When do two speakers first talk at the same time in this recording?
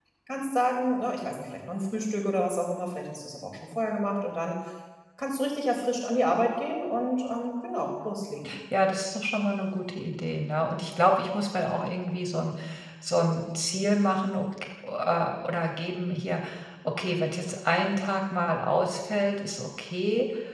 none

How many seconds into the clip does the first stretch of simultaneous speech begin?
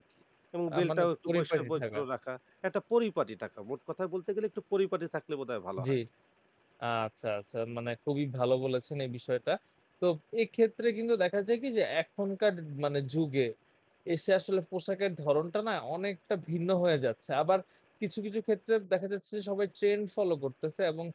0.7 s

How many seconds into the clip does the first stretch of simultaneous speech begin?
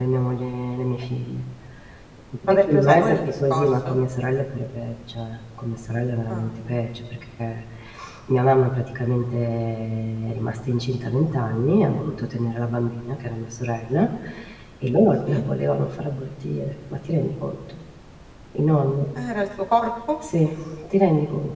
2.5 s

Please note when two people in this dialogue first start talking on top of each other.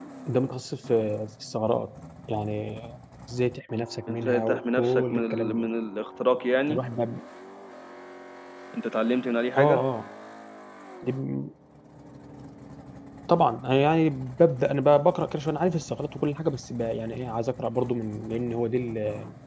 4.1 s

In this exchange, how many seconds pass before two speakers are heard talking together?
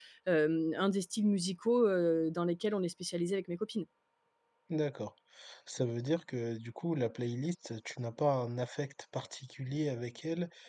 none

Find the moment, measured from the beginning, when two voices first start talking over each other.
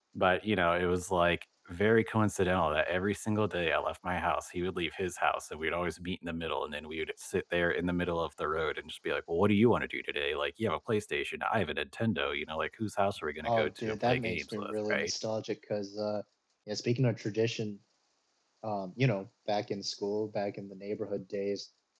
13.4 s

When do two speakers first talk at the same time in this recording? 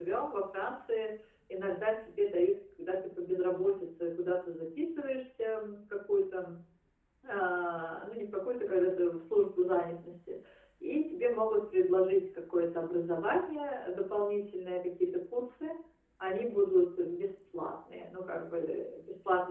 none

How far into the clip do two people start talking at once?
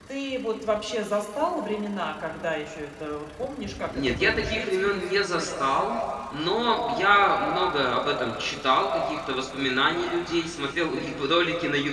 3.9 s

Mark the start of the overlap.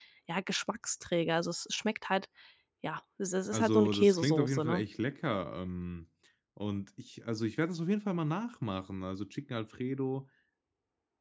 3.5 s

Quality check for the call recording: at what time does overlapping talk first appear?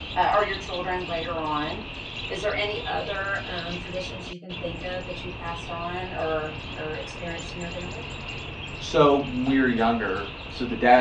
none

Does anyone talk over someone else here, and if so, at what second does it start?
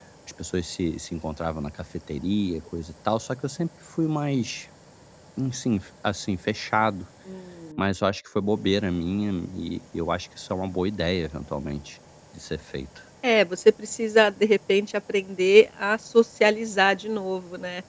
none

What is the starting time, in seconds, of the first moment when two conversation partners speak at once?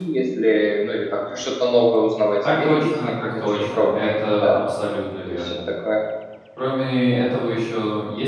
2.5 s

